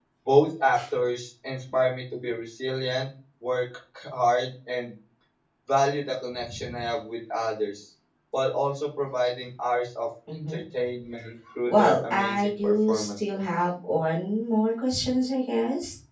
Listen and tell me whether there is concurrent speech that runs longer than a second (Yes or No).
Yes